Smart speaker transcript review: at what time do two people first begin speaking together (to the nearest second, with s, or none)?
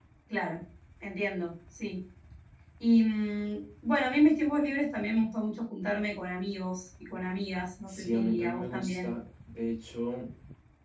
8 s